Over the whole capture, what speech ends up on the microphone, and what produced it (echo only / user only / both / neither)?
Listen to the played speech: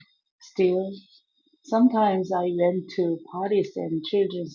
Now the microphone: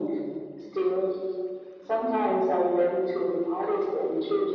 echo only